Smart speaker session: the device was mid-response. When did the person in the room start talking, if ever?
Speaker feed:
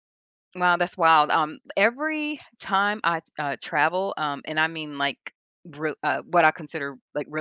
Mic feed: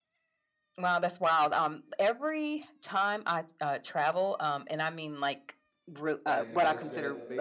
6.3 s

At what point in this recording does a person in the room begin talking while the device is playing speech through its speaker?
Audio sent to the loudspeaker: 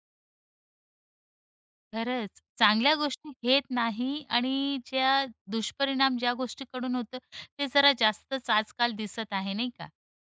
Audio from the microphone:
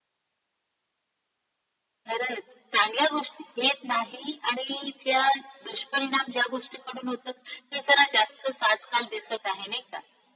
none

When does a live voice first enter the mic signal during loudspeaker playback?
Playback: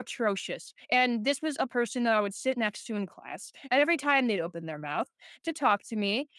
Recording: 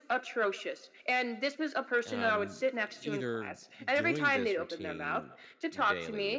2.0 s

